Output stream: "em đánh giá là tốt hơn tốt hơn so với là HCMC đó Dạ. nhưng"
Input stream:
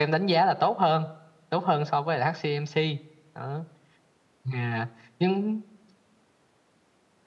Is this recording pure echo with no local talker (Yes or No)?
Yes